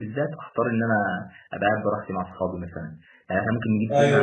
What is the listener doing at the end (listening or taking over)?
listening